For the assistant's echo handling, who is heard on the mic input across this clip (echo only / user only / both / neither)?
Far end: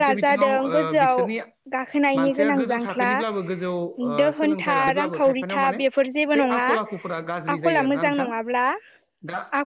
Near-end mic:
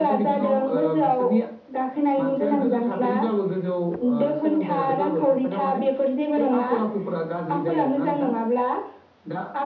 echo only